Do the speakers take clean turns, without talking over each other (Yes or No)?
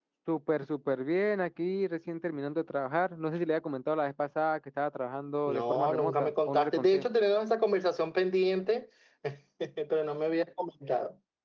No